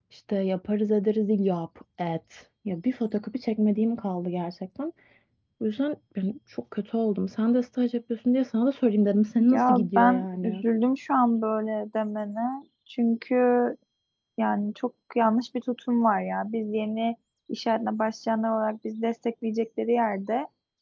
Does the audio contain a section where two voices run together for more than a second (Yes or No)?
Yes